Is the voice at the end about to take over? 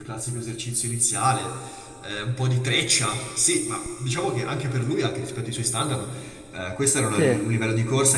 No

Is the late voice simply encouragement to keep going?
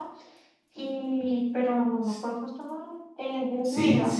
No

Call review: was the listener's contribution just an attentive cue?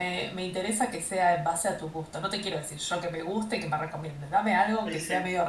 Yes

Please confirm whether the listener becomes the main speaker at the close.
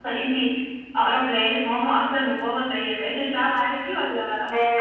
Yes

